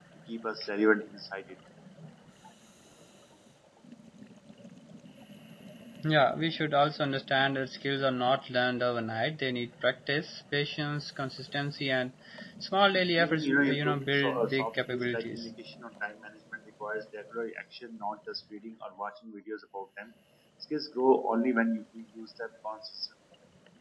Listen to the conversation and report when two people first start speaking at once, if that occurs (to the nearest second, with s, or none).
13 s